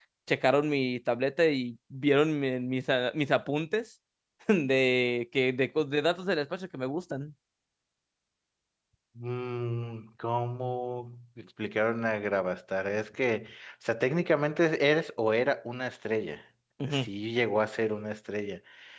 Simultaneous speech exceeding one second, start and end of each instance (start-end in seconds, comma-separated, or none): none